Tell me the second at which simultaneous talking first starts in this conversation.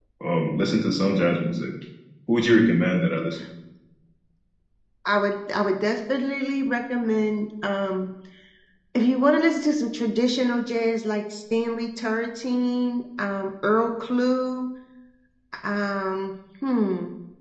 none

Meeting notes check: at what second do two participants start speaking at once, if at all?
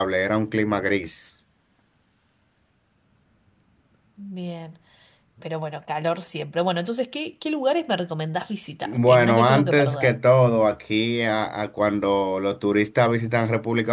8.8 s

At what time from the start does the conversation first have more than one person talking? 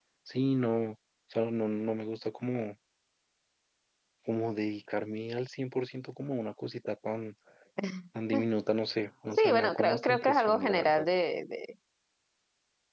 9.3 s

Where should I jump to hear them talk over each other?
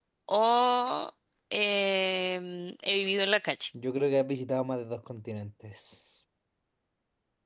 none

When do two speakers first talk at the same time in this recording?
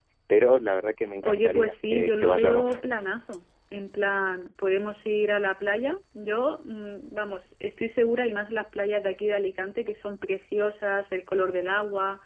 1.2 s

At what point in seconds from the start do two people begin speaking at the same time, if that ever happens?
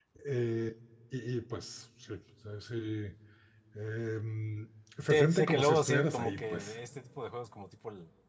5.1 s

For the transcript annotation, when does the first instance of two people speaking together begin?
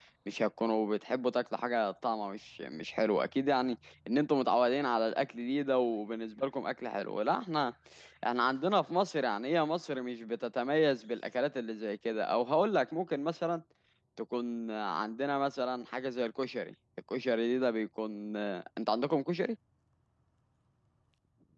none

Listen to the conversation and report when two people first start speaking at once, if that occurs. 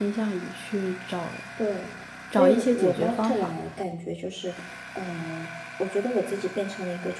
2.3 s

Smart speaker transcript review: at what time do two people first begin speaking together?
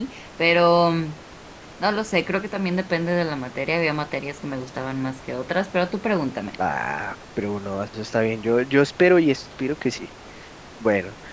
none

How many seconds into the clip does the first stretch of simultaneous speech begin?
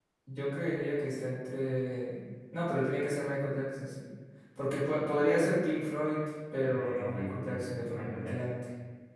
6.6 s

